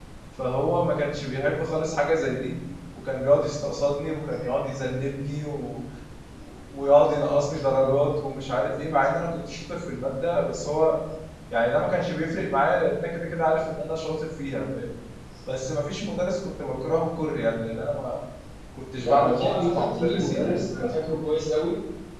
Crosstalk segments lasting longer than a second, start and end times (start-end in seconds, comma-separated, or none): 19.0-20.6